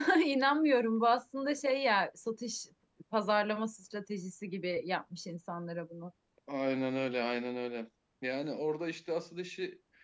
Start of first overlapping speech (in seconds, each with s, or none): none